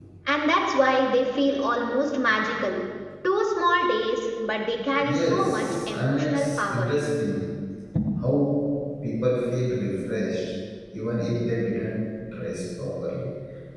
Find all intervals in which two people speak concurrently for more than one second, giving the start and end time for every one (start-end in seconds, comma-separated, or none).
5.0-6.9